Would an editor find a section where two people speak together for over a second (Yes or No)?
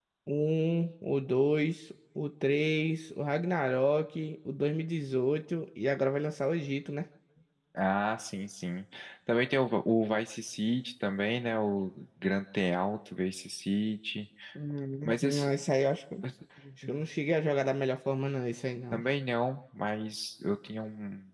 No